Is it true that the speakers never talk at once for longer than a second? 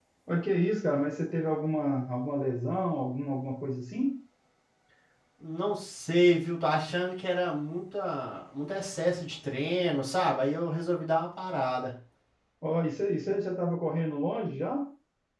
Yes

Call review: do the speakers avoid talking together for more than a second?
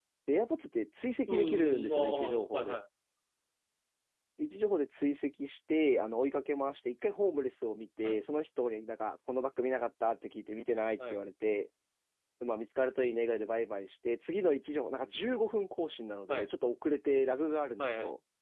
No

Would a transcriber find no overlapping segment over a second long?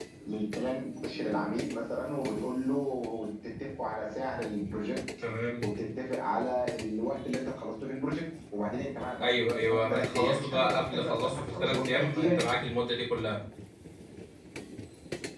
No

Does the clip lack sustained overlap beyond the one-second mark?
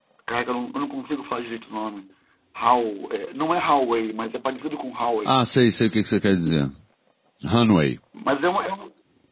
Yes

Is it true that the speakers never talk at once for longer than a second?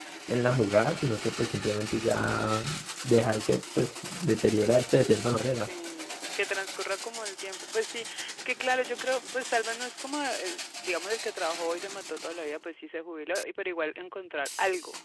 Yes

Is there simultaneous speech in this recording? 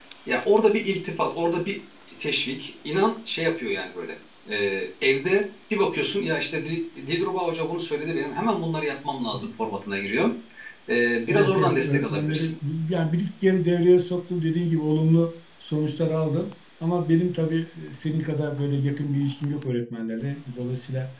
Yes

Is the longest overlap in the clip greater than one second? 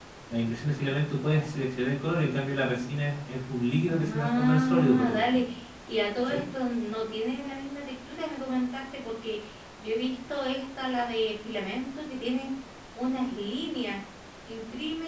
Yes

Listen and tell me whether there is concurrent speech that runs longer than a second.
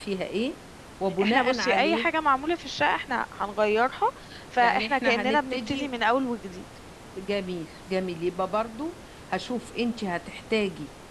Yes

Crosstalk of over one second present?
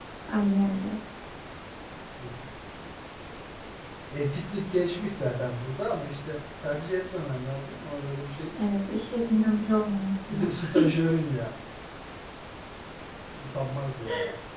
No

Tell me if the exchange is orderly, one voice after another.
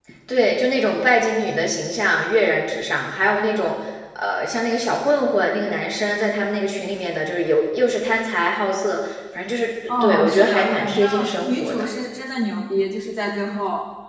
No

